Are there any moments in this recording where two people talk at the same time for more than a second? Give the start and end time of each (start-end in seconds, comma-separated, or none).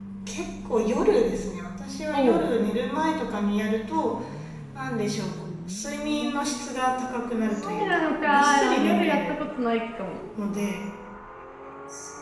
7.6-9.4